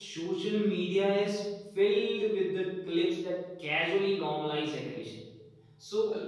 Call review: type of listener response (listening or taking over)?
listening